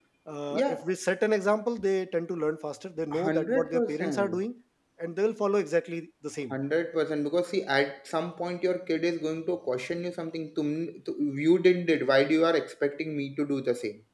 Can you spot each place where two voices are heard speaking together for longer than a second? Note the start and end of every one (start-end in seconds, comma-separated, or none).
3.1-4.4